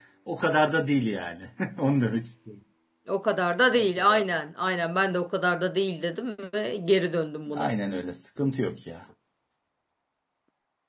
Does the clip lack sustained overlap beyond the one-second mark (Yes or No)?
Yes